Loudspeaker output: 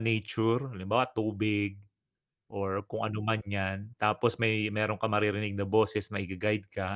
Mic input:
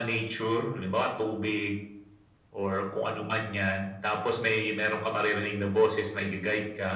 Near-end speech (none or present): none